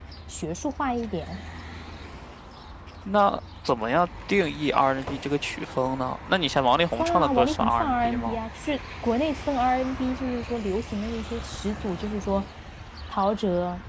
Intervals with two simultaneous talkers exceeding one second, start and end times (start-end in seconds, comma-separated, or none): 6.9-8.4